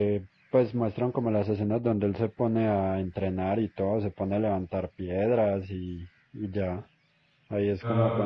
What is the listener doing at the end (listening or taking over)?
listening